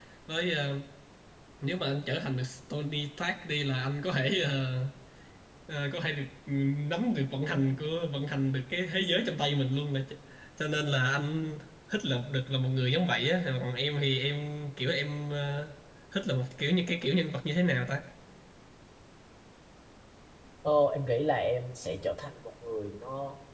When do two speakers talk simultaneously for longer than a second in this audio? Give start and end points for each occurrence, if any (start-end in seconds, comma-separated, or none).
none